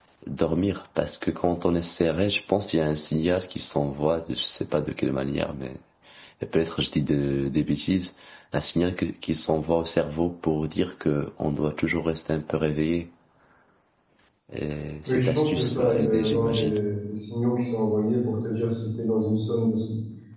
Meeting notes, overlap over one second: present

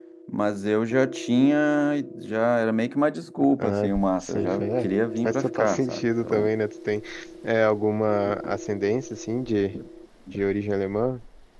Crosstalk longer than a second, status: present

